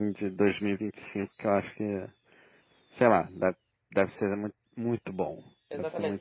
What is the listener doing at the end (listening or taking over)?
taking over